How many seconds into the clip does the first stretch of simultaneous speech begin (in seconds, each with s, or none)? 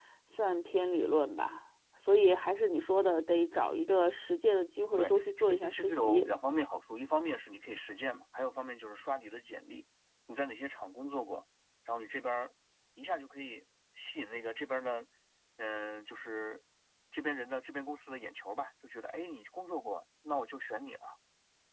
5.0 s